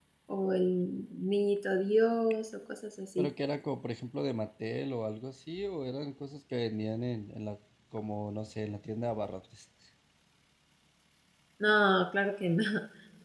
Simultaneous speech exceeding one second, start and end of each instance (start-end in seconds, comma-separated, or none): none